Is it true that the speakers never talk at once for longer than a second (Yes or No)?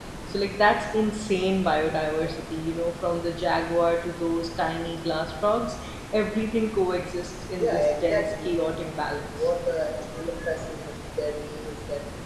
No